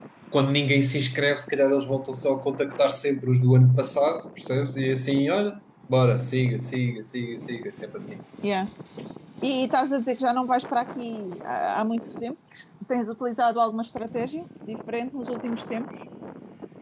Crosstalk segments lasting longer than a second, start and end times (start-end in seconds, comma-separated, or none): none